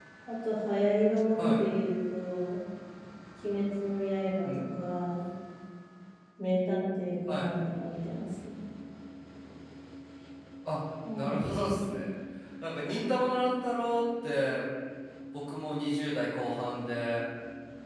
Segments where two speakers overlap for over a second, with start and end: none

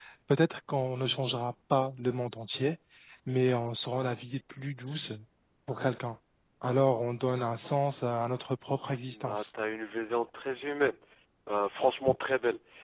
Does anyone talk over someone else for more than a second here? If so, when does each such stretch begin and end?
none

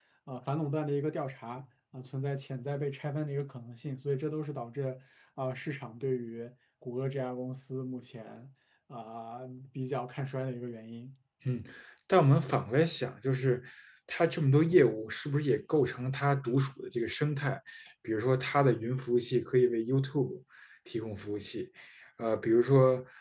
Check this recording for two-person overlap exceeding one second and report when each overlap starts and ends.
none

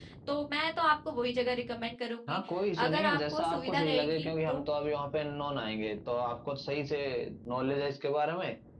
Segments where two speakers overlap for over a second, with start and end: 2.9-4.6

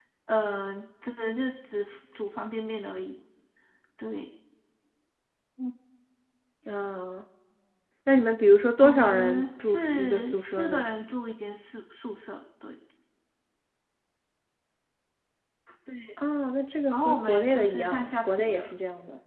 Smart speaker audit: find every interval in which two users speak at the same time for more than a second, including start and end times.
8.8-10.8, 16.9-18.7

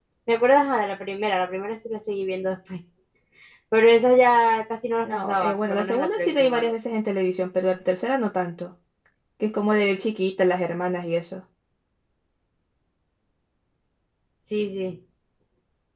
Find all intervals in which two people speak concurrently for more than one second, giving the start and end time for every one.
5.0-6.7

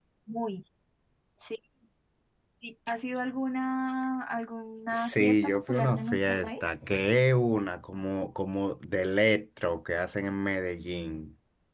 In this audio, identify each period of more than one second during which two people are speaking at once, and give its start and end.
4.9-6.6

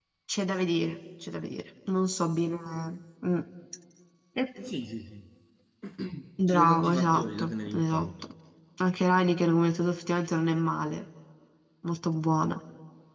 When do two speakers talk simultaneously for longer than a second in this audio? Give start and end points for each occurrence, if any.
6.5-8.1

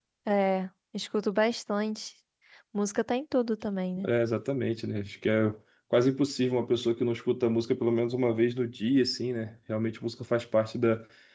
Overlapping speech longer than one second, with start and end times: none

